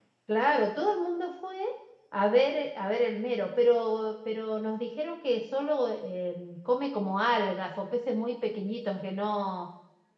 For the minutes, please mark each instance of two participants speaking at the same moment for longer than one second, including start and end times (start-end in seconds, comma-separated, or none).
none